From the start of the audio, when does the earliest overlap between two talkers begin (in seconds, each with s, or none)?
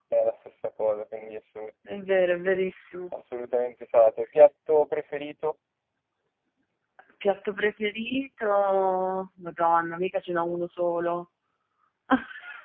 none